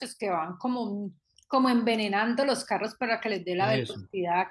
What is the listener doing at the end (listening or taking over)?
listening